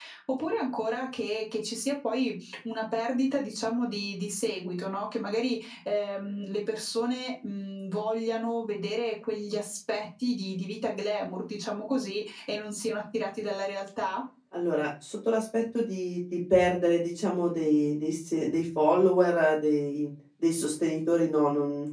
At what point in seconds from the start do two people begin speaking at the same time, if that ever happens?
none

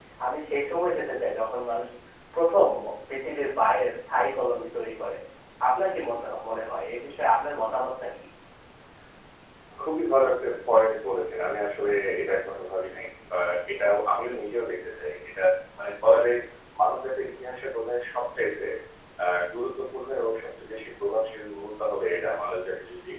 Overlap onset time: none

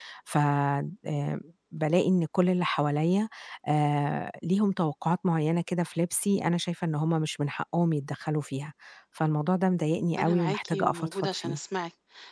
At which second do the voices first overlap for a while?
10.2 s

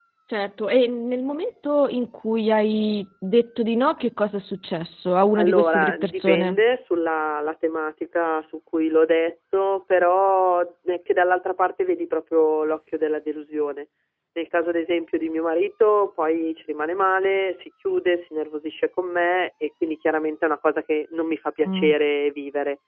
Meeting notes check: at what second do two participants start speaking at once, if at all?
5.4 s

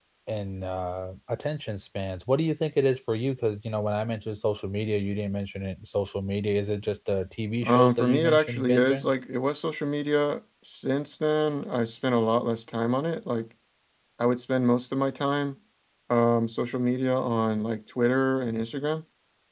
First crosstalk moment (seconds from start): 7.6 s

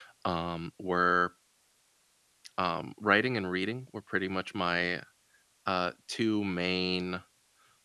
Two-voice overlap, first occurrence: none

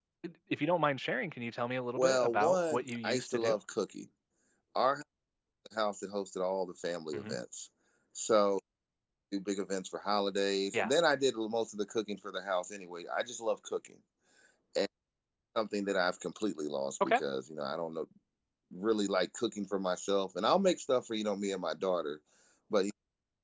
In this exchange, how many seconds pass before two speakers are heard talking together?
2.0 s

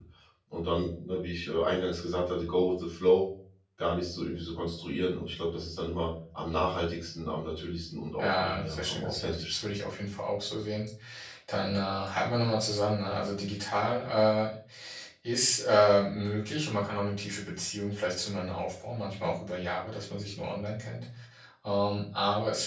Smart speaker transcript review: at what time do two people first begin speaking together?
8.2 s

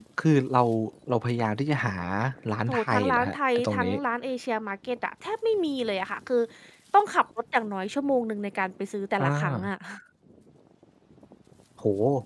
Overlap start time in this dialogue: 2.7 s

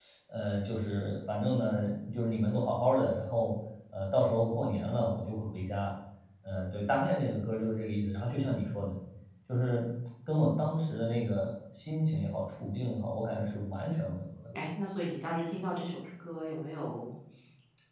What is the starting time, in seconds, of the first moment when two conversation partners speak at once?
none

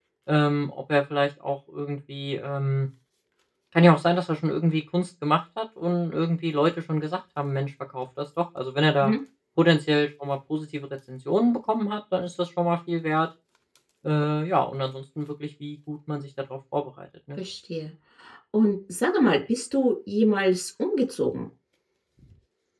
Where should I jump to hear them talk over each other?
none

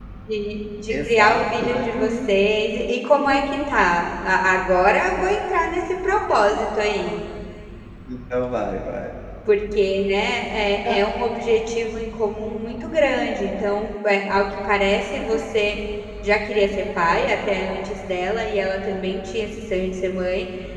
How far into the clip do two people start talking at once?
0.9 s

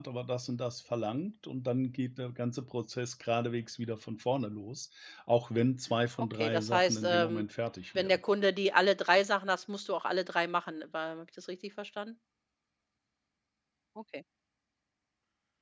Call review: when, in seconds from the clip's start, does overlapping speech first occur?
6.2 s

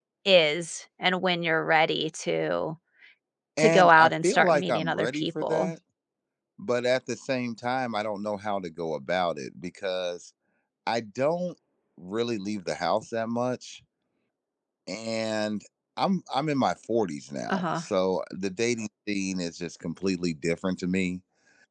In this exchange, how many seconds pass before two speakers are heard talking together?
3.6 s

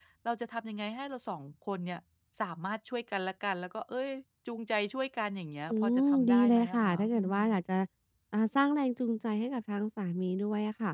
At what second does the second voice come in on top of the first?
5.7 s

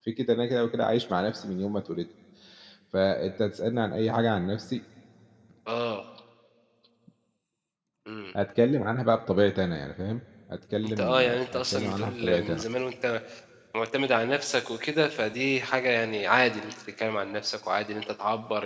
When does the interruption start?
10.8 s

